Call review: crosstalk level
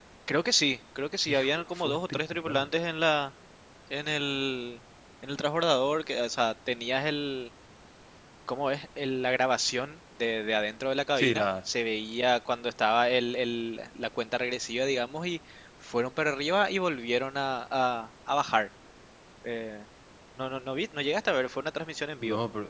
present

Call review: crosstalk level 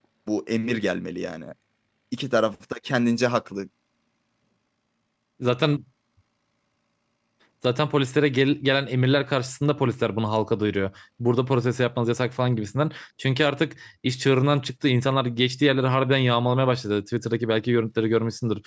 none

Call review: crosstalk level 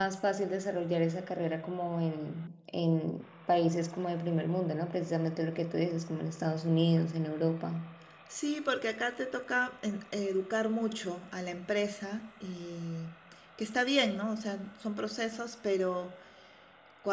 none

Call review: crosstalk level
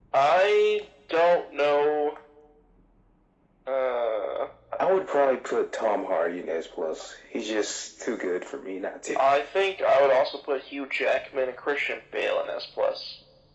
none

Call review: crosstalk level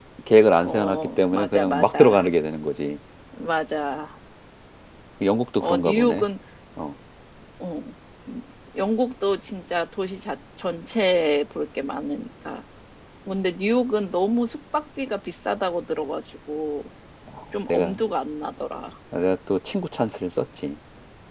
present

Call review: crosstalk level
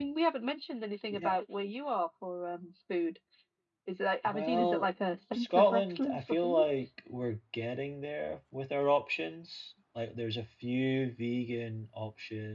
present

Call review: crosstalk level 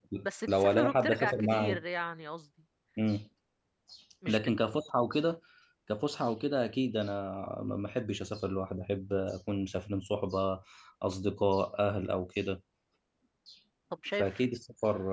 present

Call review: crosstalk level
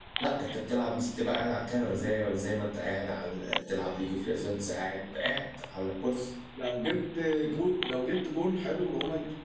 none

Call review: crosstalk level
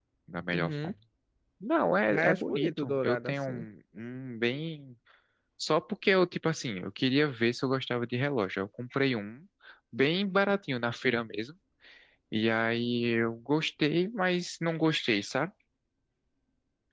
present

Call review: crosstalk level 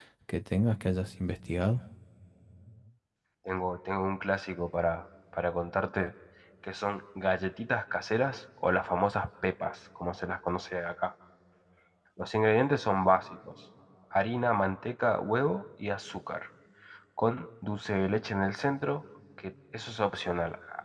none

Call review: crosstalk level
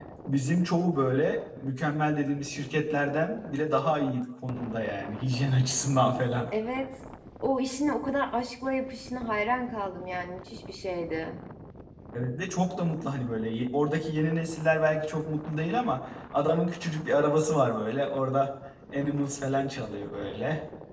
none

